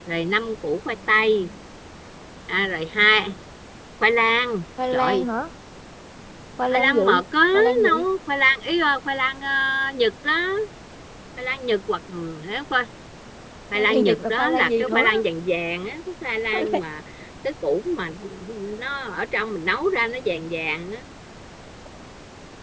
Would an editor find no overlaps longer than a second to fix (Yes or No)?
No